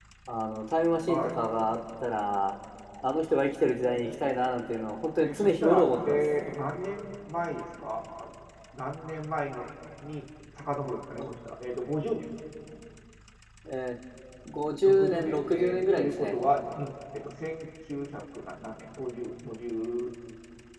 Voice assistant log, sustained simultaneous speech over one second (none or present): present